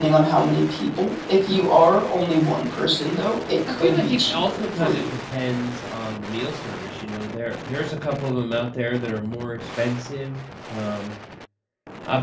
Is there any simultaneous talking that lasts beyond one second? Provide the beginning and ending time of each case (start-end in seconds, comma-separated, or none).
3.7-5.1